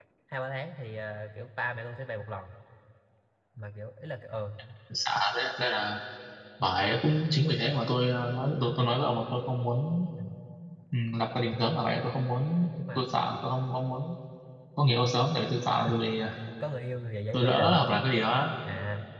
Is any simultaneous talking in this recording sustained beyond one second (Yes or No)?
No